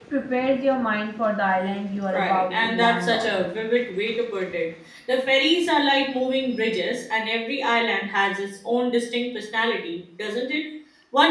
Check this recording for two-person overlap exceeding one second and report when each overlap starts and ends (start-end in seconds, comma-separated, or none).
2.1-3.4